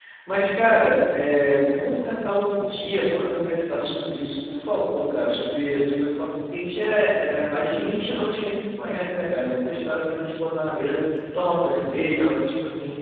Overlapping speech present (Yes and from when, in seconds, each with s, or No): No